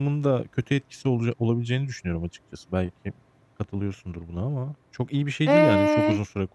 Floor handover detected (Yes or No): Yes